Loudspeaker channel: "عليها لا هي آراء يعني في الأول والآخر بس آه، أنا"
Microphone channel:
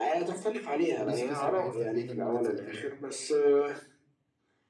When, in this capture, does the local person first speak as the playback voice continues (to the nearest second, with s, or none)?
1 s